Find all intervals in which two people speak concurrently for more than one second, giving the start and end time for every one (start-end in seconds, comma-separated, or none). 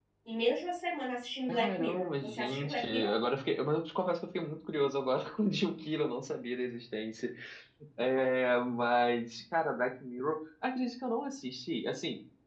1.5-3.1